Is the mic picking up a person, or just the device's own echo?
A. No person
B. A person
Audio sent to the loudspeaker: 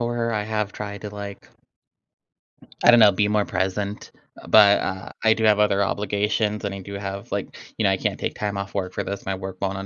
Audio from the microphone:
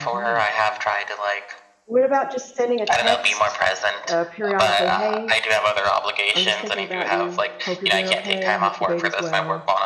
B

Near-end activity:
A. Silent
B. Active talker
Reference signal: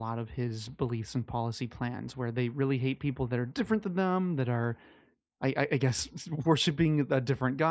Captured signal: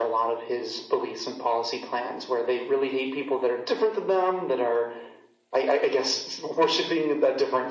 A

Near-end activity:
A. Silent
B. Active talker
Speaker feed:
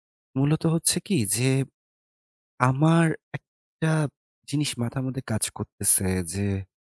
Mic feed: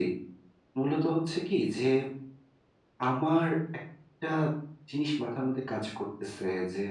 A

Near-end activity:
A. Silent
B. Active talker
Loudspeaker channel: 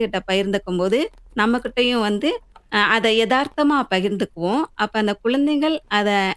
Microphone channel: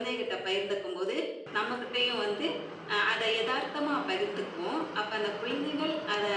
A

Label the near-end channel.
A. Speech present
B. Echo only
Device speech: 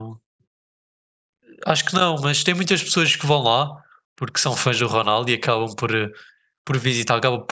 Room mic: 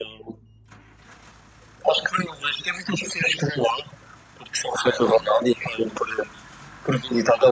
B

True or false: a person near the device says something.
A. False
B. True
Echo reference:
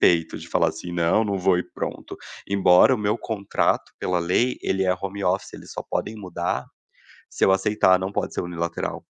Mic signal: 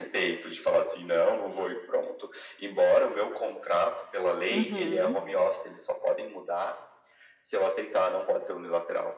B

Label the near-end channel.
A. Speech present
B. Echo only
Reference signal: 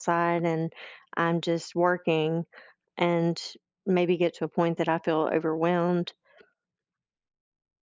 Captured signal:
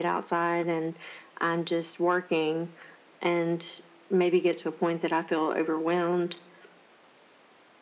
B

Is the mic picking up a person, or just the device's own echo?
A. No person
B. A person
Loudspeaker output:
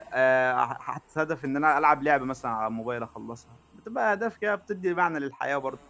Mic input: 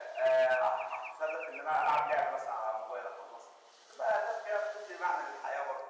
A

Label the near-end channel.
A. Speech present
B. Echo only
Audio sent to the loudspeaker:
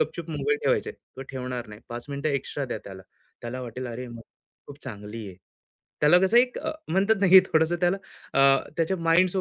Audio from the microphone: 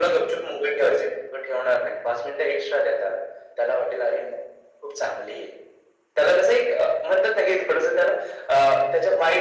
B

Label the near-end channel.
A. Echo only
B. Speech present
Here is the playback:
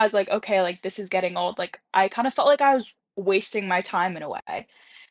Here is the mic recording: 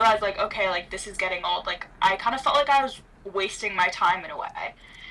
A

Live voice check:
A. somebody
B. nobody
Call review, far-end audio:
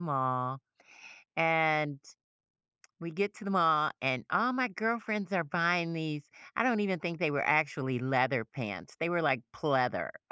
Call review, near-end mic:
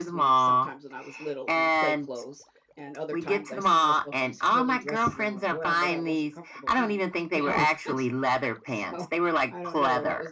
A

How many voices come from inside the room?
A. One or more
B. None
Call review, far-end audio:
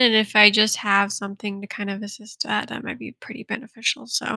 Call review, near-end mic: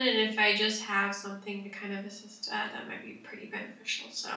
B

